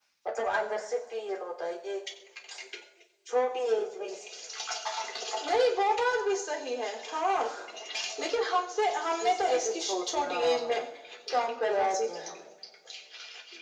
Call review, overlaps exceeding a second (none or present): present